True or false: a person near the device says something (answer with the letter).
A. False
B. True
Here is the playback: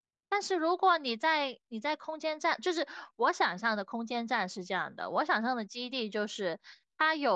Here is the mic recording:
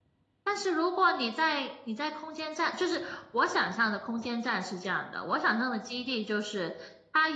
A